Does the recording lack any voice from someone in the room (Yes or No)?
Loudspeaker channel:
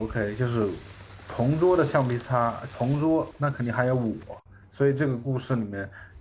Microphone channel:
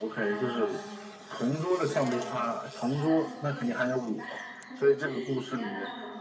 No